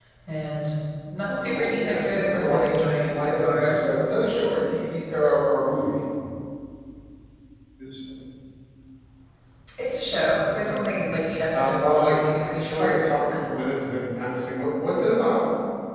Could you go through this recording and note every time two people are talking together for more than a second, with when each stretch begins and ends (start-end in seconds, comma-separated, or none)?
1.3-3.8, 11.5-13.0